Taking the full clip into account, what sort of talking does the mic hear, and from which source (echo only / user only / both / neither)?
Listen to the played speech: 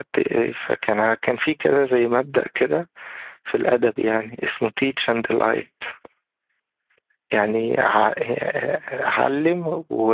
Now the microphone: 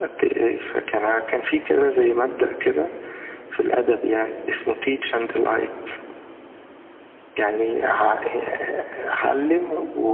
echo only